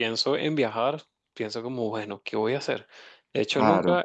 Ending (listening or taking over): listening